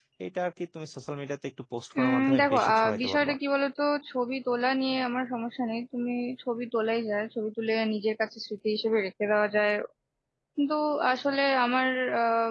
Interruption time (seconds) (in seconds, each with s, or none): 1.9 s